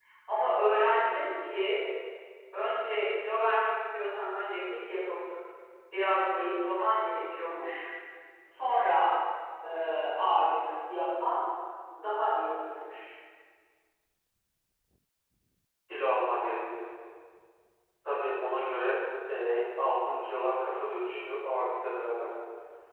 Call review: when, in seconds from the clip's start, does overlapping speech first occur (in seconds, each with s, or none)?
none